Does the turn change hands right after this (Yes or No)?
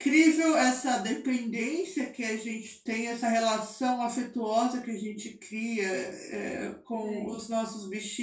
No